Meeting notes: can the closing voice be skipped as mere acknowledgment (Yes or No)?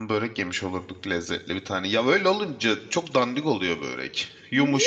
Yes